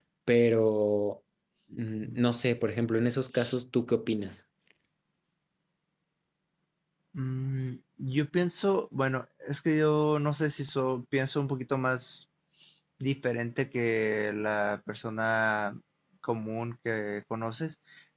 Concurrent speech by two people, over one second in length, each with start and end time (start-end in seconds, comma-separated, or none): none